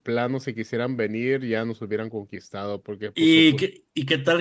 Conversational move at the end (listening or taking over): taking over